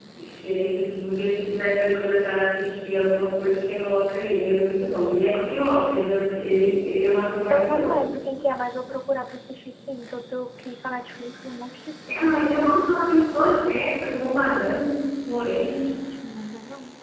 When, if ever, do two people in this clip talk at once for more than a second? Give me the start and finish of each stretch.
none

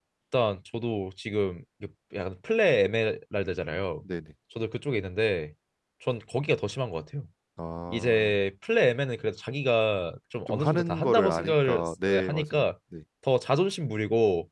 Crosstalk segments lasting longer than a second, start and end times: 10.5-12.7

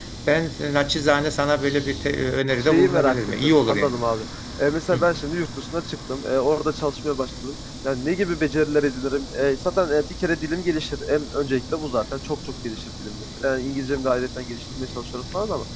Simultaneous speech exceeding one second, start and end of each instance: 2.6-4.0

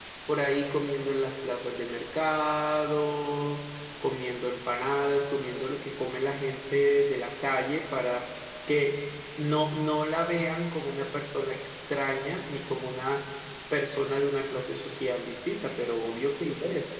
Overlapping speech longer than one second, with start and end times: none

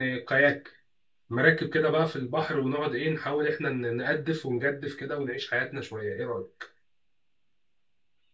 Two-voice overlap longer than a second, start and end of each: none

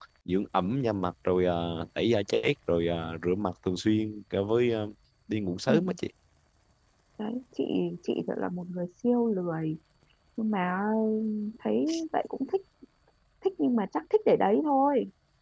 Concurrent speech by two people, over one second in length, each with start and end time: none

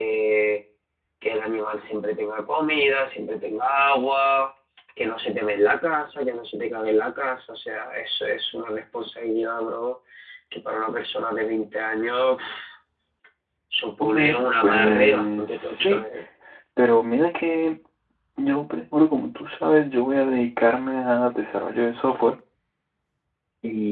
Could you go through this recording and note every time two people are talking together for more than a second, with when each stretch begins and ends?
14.0-16.0

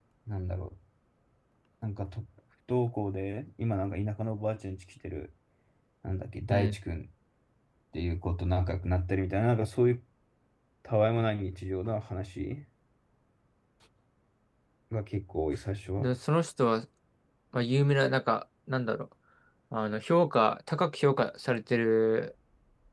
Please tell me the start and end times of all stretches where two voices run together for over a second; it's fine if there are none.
none

